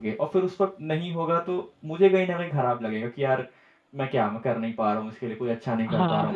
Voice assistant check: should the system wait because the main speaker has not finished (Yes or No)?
No